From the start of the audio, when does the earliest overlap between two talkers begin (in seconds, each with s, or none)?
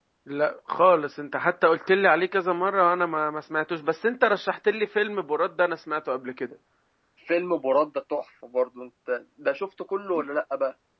none